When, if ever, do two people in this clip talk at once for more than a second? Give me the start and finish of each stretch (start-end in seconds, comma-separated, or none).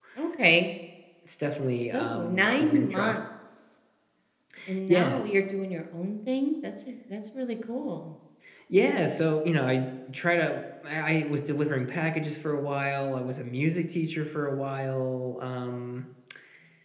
1.6-3.2